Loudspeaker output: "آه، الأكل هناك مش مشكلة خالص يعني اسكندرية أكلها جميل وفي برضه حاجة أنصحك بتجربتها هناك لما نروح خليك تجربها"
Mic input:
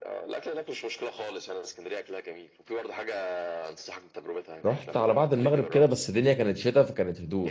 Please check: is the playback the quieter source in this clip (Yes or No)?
Yes